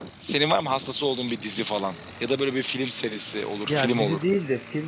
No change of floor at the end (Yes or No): No